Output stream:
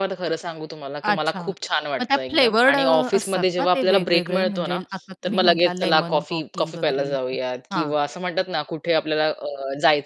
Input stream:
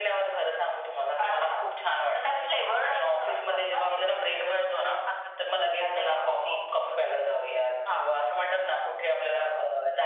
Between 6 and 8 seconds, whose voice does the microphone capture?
echo only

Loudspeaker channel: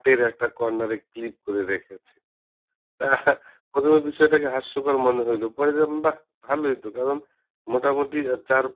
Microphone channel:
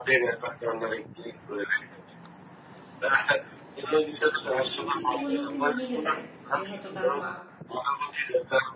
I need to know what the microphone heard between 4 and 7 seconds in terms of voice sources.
both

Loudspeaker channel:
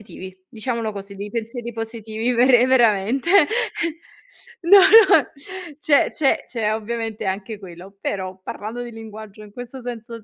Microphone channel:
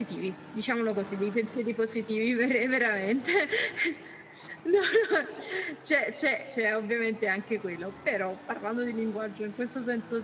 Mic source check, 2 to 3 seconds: echo only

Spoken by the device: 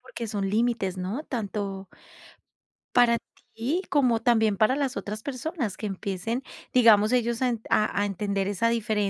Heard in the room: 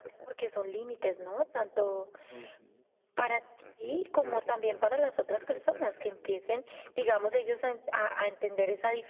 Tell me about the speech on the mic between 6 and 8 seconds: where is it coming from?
both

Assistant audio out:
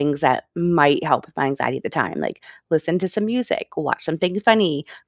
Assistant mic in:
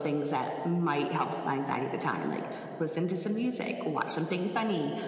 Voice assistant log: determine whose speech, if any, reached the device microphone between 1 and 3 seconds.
echo only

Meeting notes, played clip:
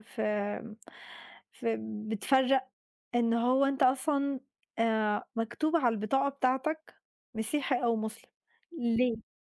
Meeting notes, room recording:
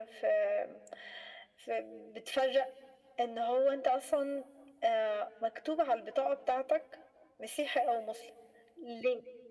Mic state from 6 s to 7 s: echo only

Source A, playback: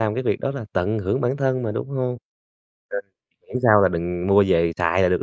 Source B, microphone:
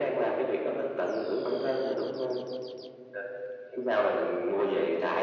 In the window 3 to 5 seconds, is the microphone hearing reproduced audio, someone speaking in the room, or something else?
echo only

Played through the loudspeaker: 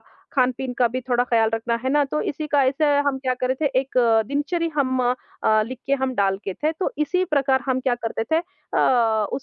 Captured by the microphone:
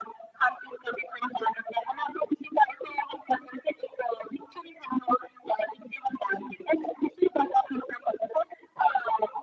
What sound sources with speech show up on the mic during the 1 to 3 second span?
echo only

